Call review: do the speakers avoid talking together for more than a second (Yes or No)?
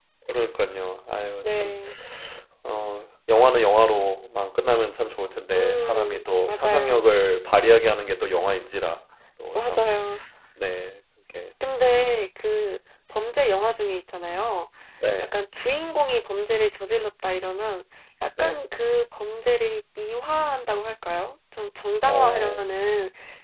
No